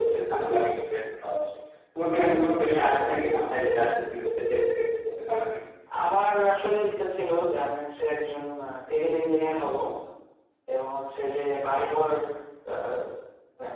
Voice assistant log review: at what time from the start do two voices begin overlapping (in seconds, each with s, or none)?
none